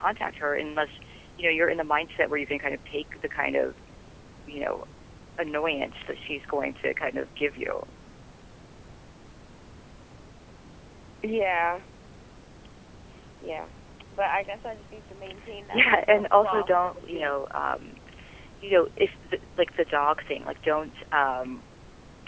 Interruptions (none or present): present